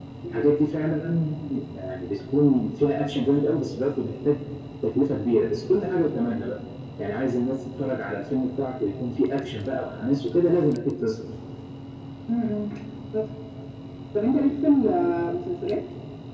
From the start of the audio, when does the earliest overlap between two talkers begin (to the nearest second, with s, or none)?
none